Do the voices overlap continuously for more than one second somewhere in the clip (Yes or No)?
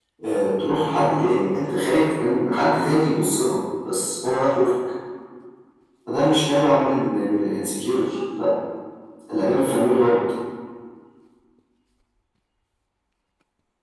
No